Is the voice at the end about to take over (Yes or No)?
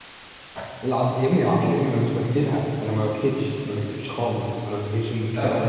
Yes